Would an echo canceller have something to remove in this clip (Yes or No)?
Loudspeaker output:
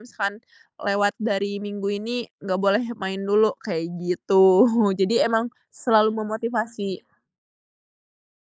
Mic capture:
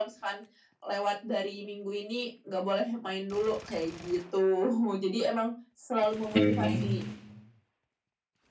Yes